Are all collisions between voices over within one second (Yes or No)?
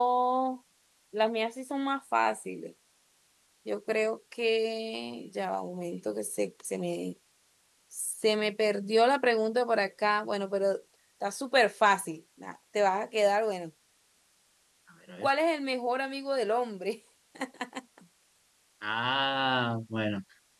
Yes